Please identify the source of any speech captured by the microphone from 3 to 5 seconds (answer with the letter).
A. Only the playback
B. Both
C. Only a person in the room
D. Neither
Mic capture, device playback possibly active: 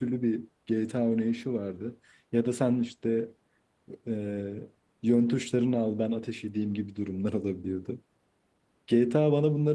C